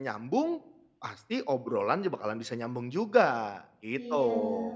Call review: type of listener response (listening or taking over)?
taking over